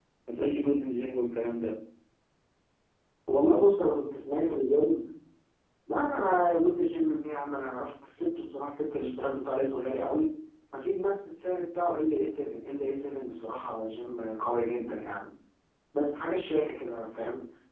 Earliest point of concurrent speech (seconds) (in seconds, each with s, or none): none